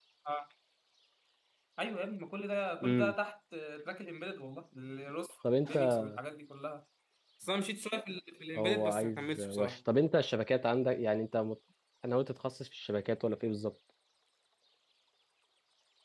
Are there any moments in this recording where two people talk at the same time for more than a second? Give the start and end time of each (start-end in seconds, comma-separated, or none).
8.6-9.8